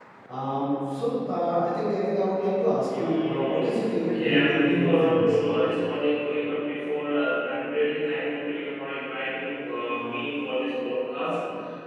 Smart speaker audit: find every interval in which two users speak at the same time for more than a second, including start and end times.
3.0-5.4

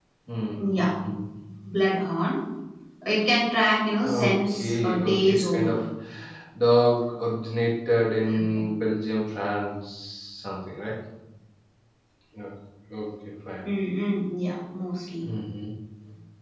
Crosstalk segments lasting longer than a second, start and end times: 4.0-5.8

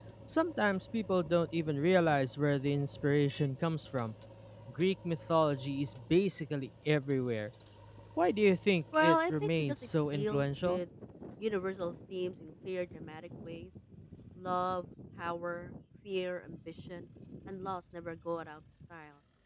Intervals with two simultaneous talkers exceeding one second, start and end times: 9.0-10.8

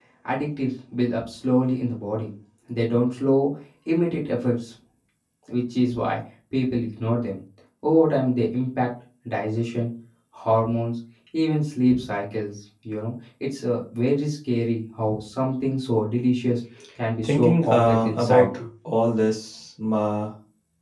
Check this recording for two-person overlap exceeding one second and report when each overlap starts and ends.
17.2-18.5

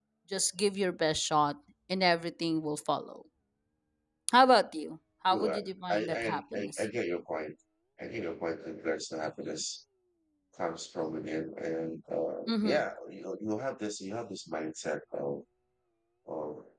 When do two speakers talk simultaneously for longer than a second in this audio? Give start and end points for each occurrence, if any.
5.3-6.8

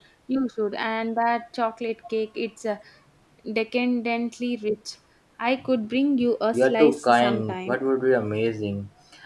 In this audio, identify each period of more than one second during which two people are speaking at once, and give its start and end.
6.5-7.8

